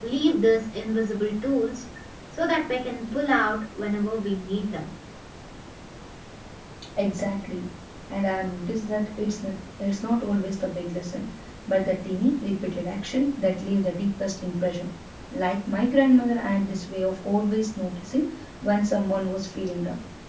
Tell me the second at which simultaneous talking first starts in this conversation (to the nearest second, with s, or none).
none